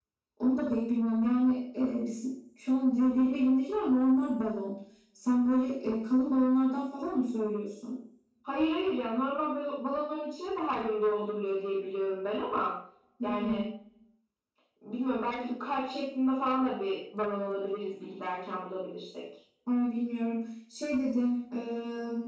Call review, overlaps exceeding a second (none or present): none